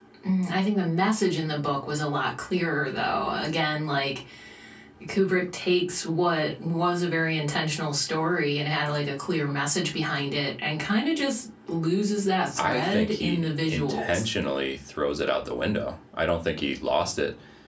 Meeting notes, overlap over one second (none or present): present